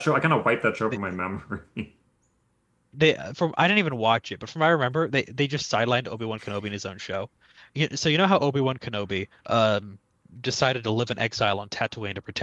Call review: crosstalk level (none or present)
none